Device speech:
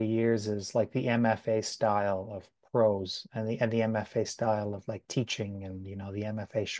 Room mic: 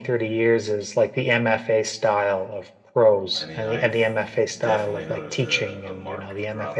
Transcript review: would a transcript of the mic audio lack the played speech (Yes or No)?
No